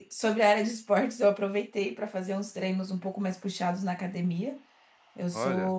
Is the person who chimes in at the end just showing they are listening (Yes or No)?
Yes